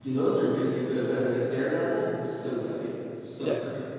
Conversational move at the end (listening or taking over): taking over